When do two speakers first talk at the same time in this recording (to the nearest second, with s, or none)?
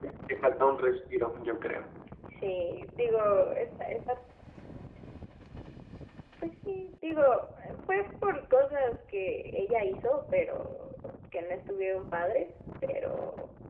none